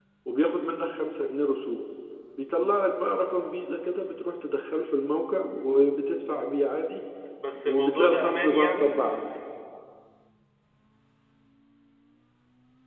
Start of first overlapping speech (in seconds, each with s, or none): 7.7 s